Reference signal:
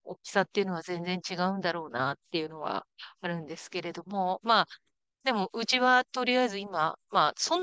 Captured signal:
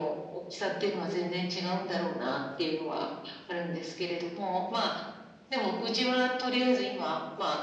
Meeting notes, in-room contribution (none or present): none